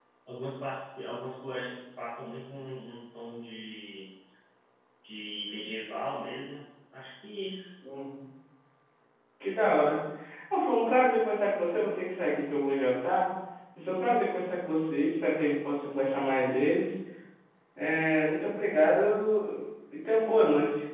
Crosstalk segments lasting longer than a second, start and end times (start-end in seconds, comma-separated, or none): none